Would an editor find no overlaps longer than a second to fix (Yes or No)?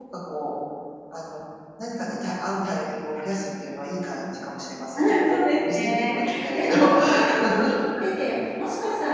No